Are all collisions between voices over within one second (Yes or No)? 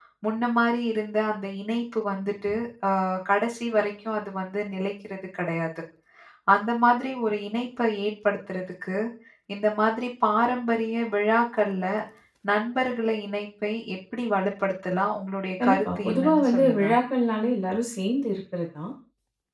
No